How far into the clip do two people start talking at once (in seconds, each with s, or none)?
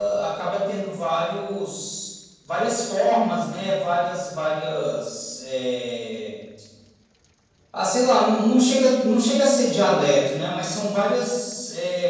none